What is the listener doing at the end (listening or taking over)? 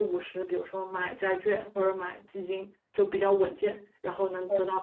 listening